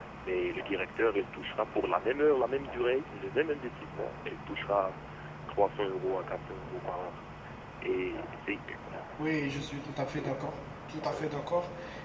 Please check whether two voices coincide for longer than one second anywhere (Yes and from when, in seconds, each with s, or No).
No